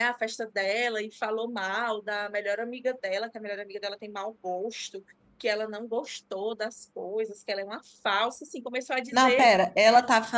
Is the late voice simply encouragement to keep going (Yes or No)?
No